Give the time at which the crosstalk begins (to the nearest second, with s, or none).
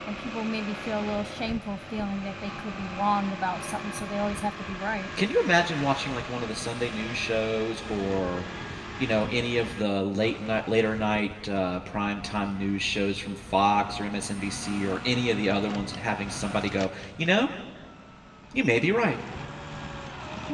none